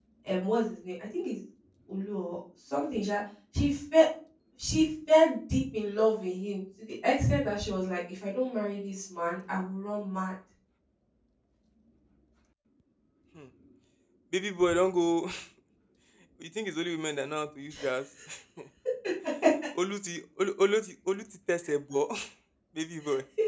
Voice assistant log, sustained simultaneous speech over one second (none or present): none